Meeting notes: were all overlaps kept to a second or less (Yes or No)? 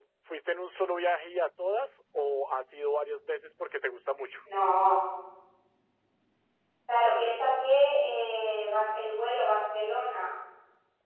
Yes